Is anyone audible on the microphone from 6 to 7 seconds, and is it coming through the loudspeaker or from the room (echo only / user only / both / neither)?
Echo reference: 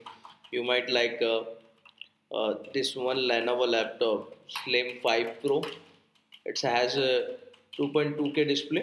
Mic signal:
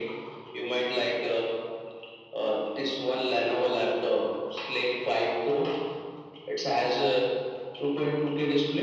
echo only